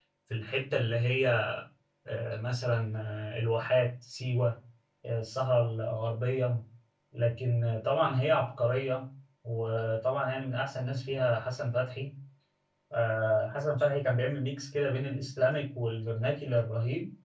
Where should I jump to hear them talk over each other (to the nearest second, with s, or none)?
none